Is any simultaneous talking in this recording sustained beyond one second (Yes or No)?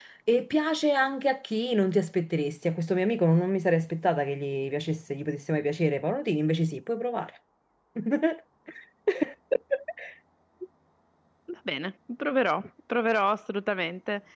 No